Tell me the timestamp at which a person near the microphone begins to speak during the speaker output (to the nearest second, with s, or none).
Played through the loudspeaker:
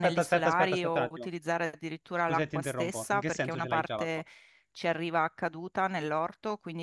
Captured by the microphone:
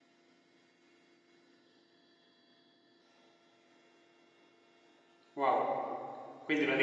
5 s